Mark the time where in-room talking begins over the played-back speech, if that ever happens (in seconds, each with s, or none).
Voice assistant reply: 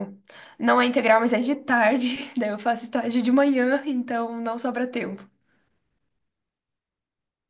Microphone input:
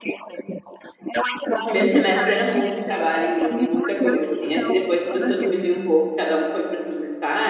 1.5 s